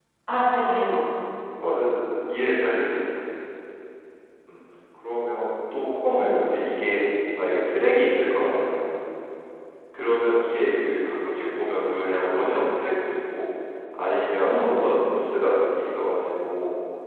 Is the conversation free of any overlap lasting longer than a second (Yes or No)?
Yes